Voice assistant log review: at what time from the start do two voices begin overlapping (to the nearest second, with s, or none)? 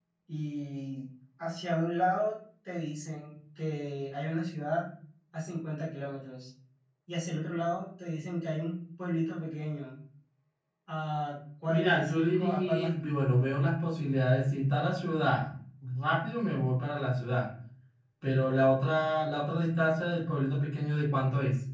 12 s